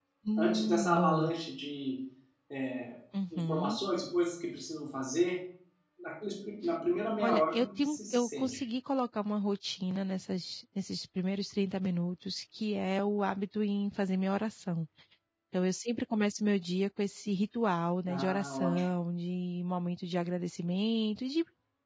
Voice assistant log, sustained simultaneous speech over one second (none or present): present